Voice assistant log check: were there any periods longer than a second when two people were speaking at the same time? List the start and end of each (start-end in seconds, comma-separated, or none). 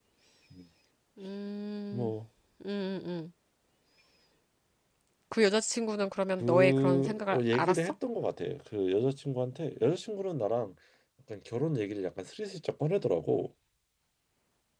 6.4-7.9